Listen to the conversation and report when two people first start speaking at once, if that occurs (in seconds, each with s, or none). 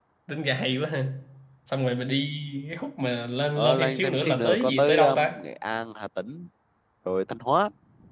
3.6 s